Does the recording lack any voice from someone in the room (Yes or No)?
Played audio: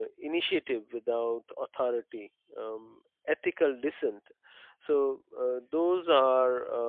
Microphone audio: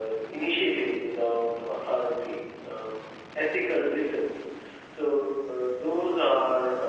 Yes